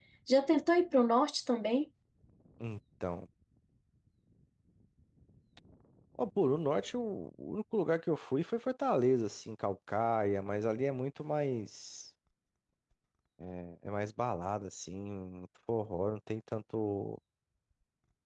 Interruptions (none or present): none